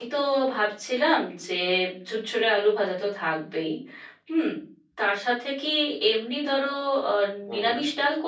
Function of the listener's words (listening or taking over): listening